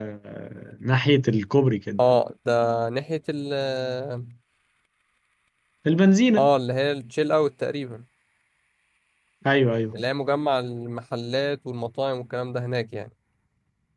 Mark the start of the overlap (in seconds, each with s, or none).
none